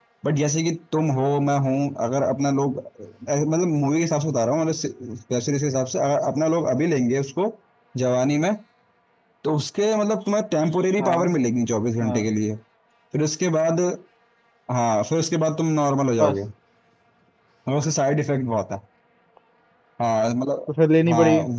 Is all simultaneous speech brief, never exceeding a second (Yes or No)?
Yes